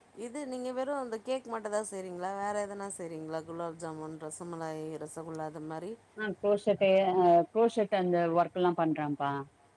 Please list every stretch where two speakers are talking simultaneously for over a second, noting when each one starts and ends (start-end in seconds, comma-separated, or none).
none